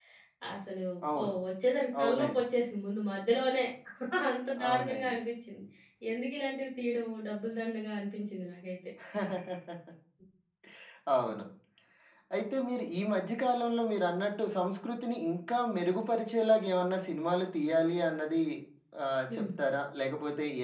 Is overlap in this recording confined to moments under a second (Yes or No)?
Yes